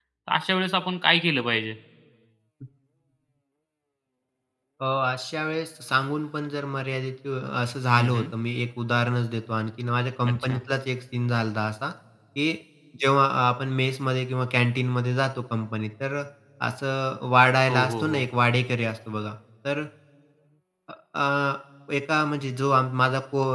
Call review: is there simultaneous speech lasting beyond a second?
No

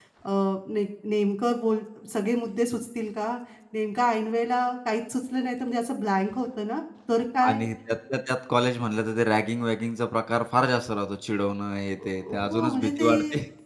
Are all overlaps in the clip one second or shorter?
No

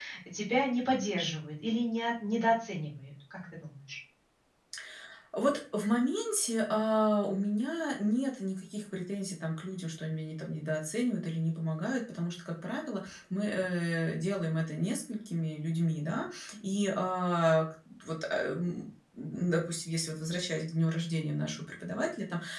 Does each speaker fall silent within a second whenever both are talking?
Yes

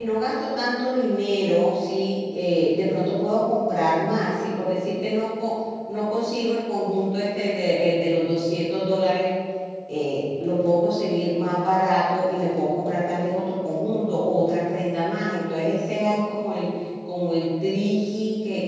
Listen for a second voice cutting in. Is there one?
No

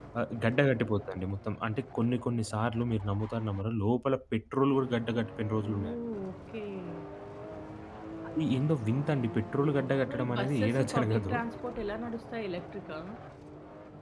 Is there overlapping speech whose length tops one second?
Yes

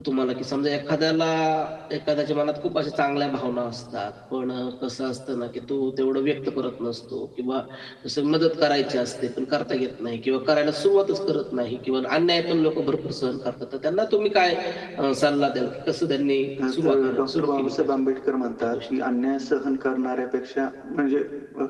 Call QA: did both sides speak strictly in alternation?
No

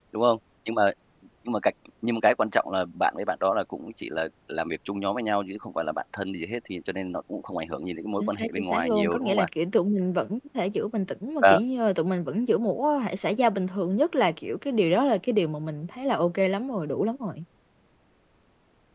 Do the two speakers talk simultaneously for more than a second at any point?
Yes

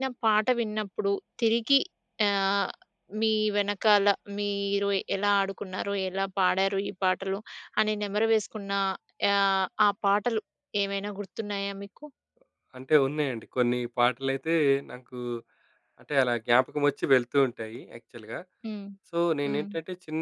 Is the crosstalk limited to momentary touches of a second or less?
Yes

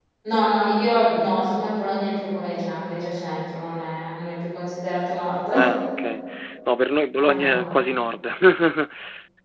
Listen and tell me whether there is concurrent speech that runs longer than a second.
No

